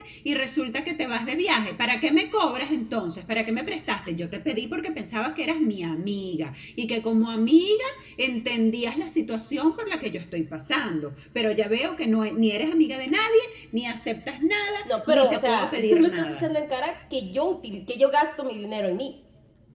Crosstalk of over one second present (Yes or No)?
Yes